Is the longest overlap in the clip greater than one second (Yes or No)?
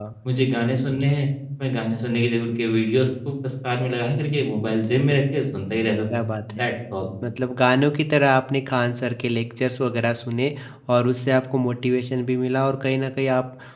No